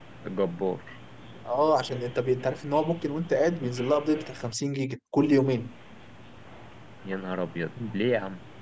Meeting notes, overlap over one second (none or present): none